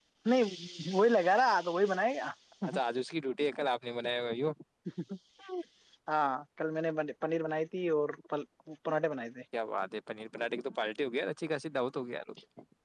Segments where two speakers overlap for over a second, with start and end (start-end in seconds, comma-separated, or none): none